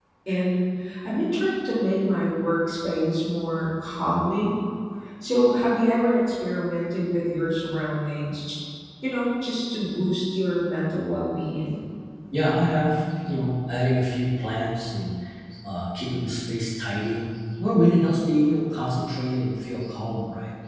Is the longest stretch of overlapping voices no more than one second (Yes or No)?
Yes